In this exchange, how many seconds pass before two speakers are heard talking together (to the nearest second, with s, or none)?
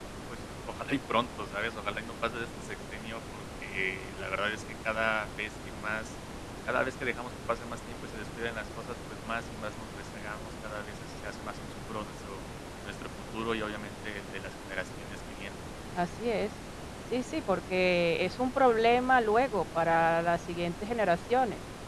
none